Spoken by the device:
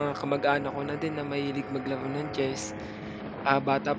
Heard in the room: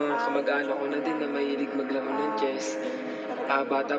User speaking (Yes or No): Yes